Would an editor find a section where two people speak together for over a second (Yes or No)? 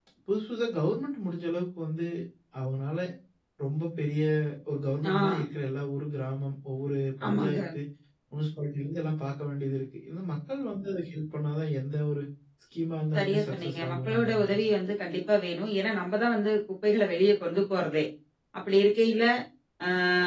Yes